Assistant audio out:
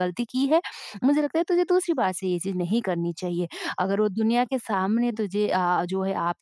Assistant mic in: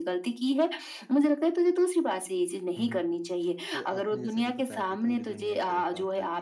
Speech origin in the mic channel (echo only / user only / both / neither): both